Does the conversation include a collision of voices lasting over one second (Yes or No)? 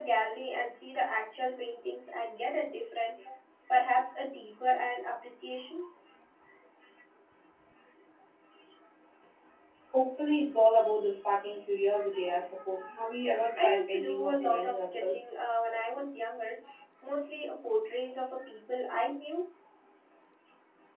Yes